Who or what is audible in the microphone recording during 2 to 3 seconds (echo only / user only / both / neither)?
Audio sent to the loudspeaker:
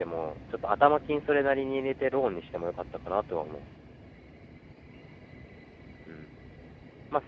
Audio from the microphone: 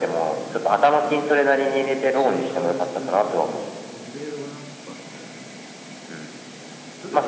both